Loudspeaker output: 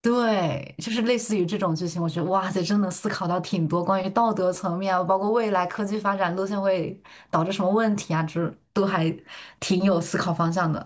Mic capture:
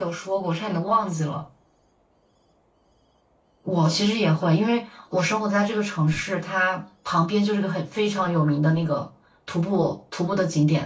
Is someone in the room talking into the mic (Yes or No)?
Yes